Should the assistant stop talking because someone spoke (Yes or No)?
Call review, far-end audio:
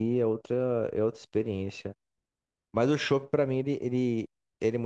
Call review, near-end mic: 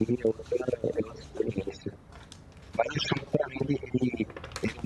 No